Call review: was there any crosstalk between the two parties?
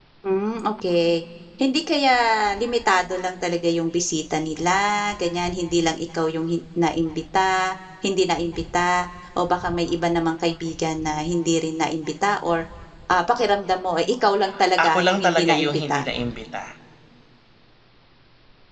Yes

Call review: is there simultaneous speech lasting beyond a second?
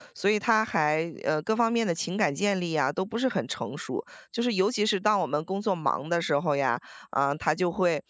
No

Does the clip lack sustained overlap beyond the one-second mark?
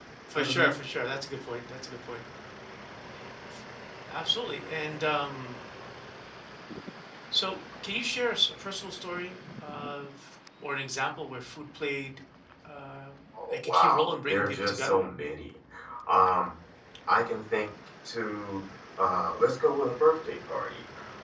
No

